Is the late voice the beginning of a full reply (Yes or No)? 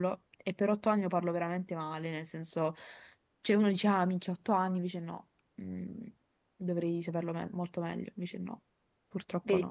Yes